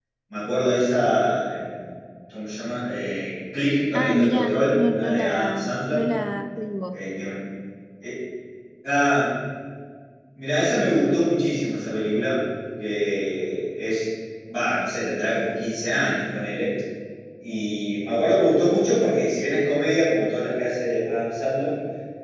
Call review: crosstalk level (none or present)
present